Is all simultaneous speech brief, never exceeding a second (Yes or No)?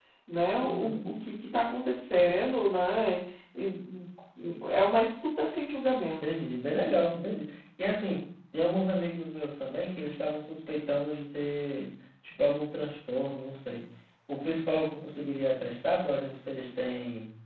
Yes